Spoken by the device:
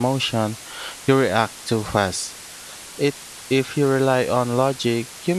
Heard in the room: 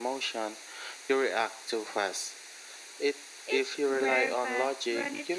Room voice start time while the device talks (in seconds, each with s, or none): 3.4 s